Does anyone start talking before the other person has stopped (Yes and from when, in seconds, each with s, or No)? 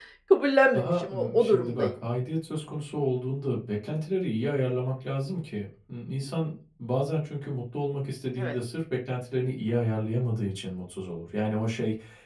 Yes, from 0.7 s